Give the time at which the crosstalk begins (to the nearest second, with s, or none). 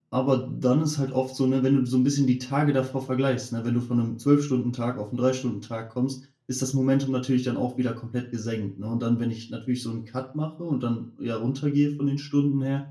none